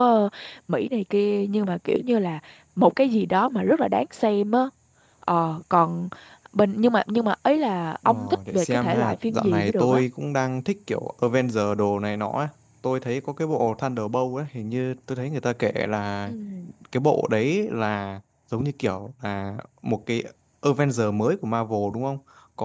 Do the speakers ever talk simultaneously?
Yes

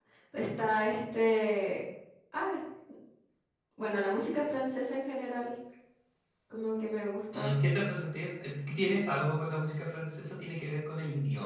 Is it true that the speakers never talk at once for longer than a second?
Yes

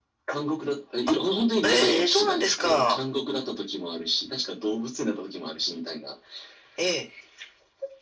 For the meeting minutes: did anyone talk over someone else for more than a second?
Yes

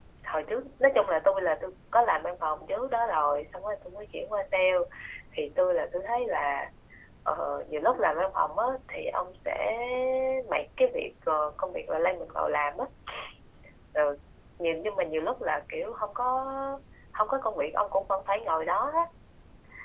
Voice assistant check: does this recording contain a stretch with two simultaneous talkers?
No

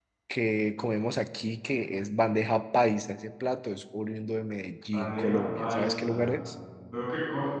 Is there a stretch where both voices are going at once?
Yes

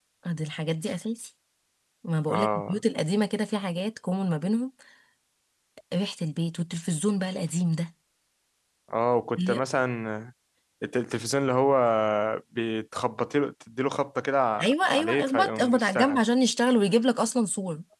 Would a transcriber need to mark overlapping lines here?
Yes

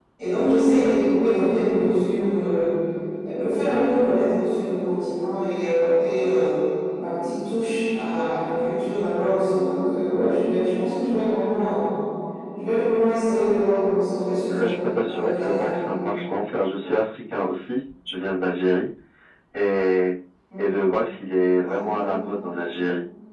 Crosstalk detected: Yes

